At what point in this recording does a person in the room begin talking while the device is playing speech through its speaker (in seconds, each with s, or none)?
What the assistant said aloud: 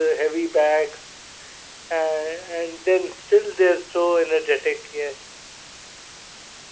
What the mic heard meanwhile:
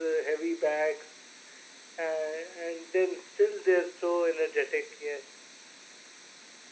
none